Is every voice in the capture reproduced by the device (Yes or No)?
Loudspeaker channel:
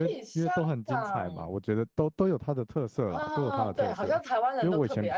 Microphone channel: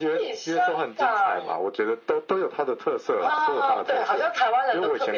Yes